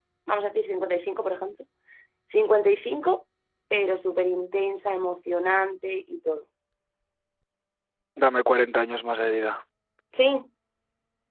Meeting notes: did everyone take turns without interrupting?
Yes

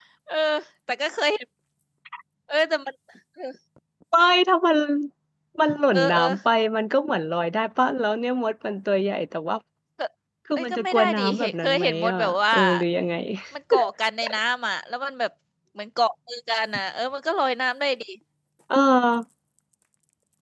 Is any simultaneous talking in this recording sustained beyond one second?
Yes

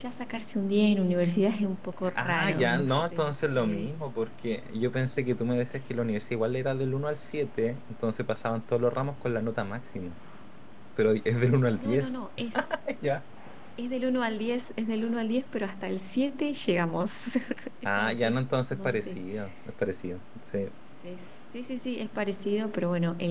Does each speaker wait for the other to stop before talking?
No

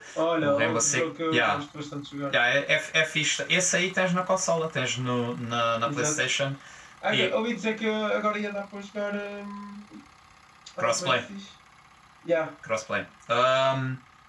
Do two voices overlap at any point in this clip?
Yes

